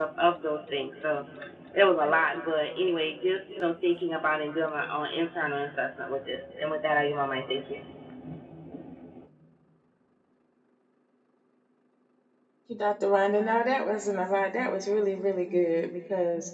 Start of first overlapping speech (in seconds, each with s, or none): none